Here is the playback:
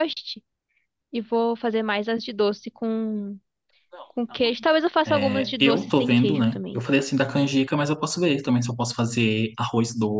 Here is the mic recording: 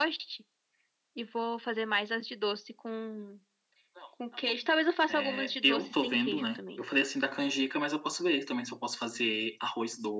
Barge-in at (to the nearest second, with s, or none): none